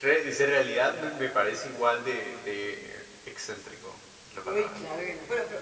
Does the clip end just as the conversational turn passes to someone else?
Yes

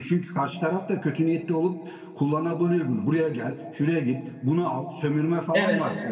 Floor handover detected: Yes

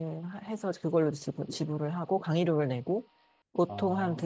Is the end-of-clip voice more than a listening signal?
No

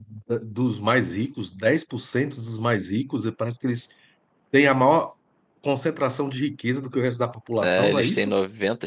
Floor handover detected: Yes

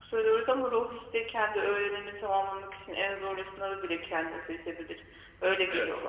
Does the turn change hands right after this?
Yes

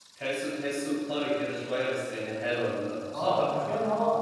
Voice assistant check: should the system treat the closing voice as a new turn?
Yes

